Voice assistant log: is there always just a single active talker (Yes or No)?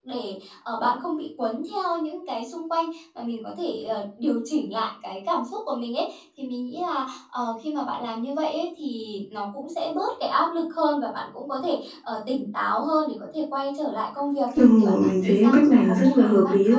No